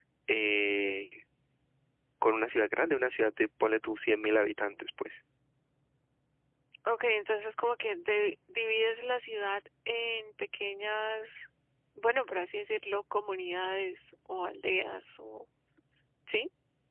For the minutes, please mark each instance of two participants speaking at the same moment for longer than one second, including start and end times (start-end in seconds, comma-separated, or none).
none